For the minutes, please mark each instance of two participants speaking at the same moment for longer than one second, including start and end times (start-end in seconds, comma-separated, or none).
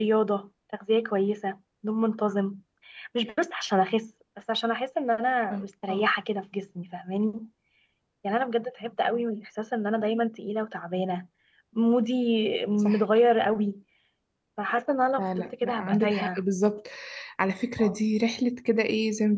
15.2-16.4